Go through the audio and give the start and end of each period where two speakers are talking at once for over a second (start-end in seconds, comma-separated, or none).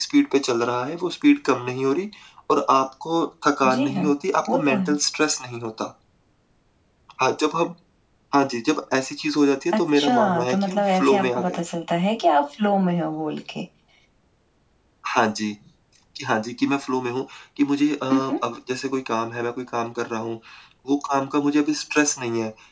9.9-11.6